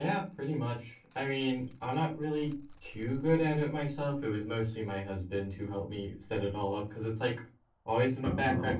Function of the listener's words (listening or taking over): listening